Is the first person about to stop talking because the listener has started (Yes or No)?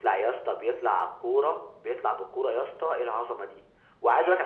No